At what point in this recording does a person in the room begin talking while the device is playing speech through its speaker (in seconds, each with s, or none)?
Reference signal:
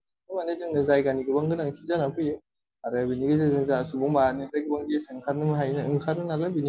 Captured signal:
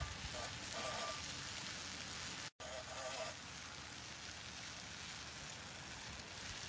none